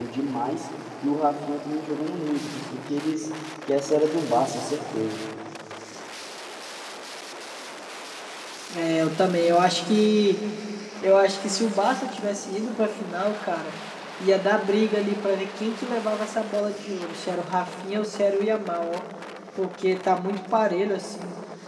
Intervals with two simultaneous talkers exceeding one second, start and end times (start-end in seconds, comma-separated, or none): none